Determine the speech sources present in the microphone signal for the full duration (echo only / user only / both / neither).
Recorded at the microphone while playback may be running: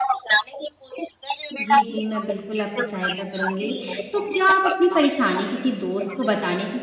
both